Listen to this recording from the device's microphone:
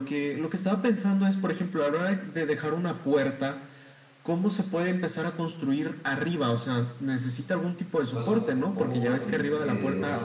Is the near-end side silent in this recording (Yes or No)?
No